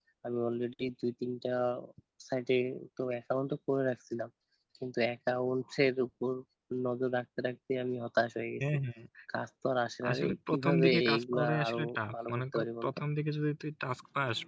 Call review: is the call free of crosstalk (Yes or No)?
No